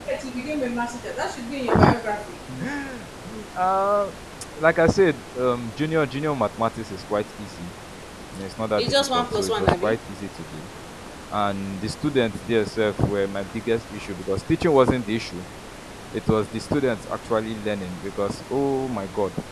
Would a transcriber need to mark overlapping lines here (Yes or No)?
Yes